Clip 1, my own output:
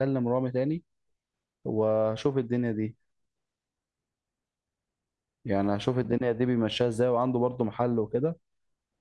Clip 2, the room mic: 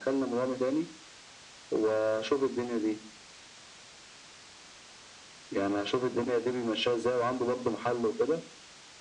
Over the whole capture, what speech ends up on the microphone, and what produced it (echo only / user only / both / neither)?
echo only